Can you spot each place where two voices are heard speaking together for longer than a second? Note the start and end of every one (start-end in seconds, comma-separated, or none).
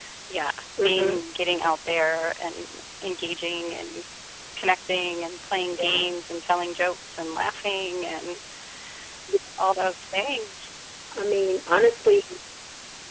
none